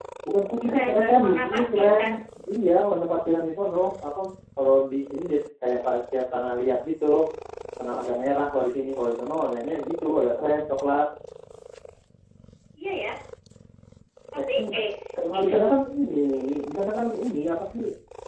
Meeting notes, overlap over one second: present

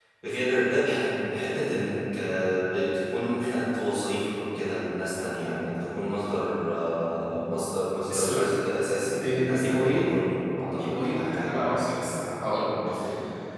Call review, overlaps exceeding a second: present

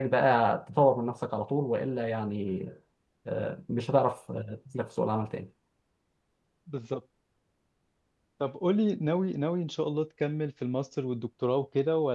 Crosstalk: none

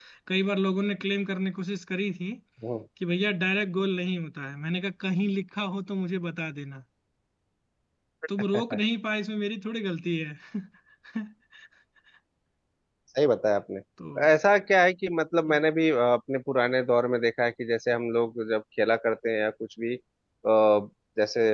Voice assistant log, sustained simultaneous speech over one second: none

